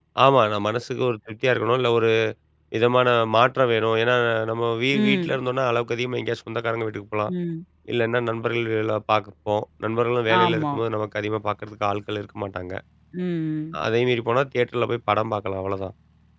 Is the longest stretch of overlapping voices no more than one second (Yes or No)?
Yes